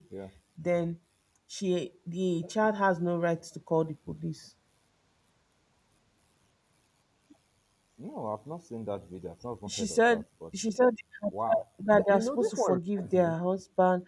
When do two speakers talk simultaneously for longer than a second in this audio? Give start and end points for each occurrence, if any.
11.5-13.3

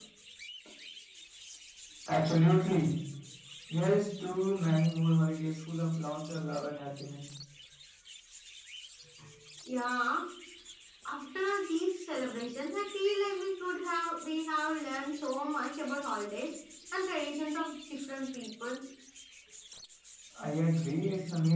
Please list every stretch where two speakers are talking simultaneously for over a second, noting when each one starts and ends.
none

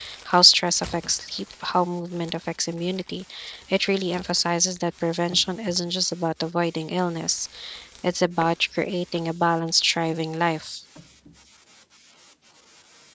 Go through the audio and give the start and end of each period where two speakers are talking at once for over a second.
none

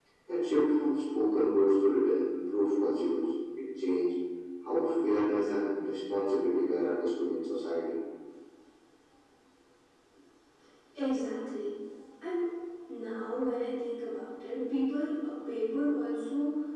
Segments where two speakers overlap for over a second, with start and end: none

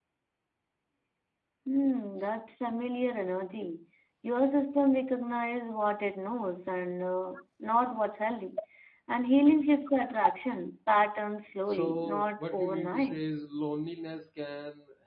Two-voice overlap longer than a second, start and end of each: 11.7-13.3

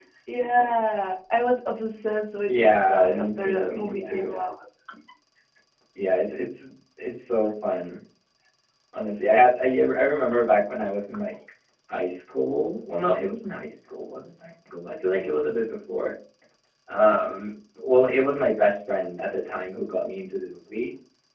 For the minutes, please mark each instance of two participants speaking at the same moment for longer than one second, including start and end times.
2.5-4.3

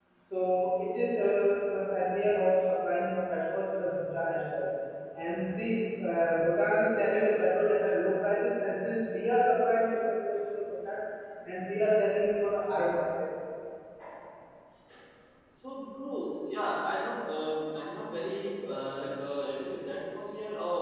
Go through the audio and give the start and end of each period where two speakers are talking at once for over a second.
none

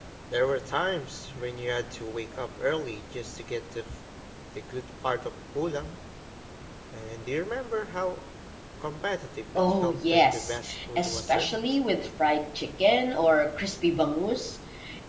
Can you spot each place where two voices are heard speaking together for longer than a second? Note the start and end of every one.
9.6-11.6

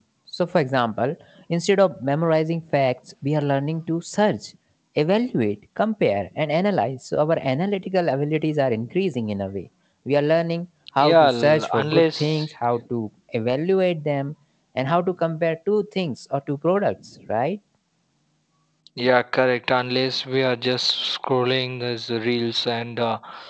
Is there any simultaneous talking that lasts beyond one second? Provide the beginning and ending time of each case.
11.0-12.4

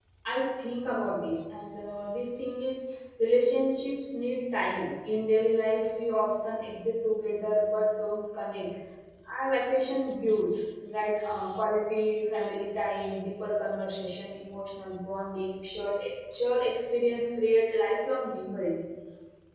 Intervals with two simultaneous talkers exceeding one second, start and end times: none

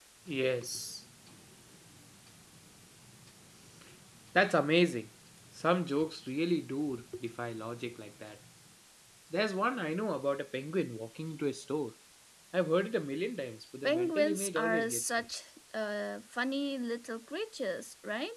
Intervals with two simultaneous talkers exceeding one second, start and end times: 13.8-15.2

